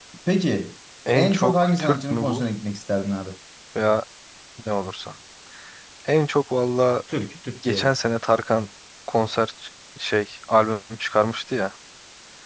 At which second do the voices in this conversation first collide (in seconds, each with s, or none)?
1.1 s